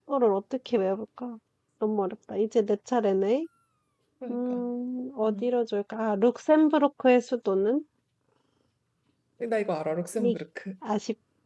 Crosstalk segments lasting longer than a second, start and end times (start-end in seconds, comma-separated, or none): none